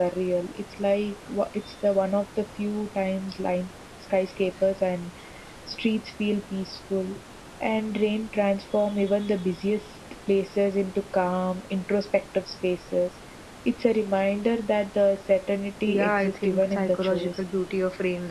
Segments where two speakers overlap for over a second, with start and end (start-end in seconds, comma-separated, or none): 15.8-17.4